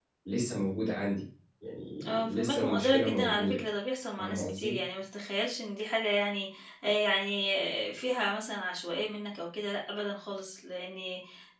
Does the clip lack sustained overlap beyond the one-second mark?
No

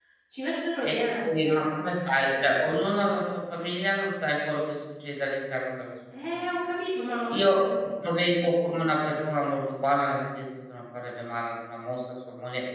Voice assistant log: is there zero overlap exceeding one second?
Yes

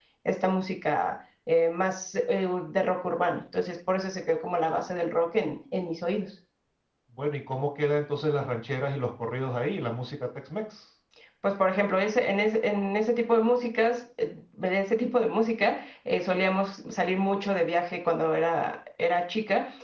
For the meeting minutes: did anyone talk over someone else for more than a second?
No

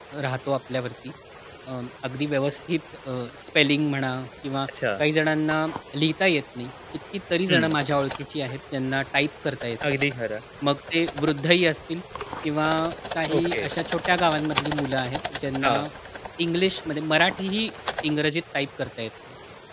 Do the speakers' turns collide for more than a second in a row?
No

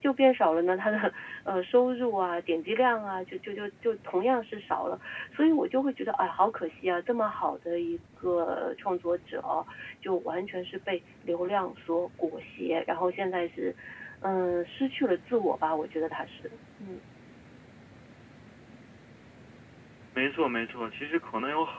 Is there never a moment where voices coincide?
Yes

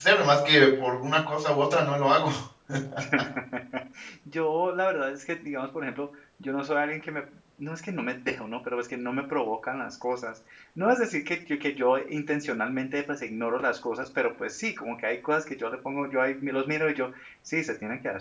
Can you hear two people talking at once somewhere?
No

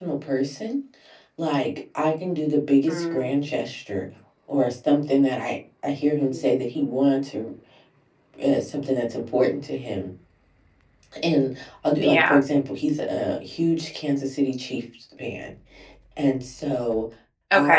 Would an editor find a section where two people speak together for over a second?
No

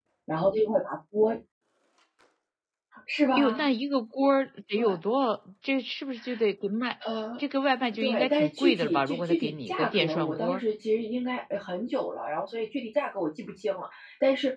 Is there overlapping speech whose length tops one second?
Yes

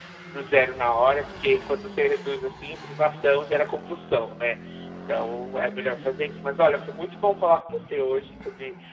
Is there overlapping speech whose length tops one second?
No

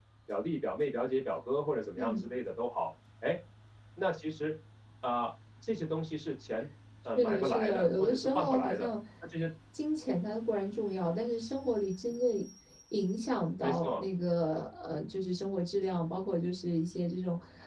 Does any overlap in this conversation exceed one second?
Yes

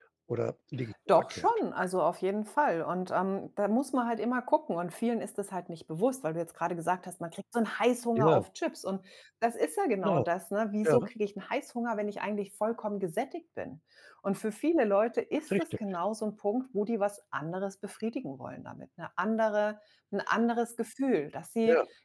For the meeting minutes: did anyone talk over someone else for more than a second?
No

